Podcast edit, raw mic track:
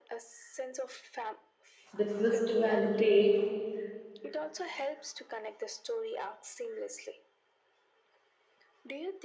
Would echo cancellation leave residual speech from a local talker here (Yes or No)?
Yes